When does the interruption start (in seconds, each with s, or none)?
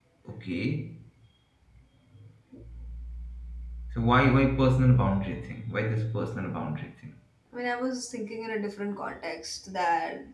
none